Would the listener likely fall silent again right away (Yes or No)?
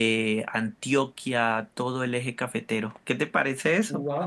No